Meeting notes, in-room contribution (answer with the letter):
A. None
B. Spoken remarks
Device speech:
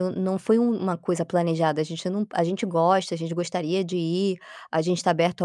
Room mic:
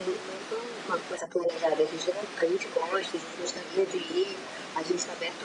A